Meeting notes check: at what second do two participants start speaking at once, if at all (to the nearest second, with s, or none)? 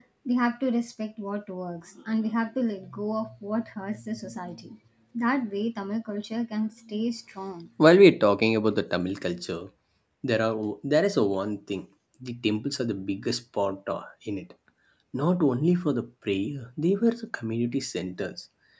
none